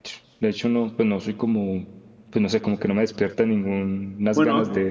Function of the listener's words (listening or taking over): taking over